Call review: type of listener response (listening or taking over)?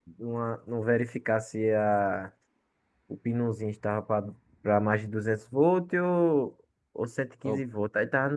listening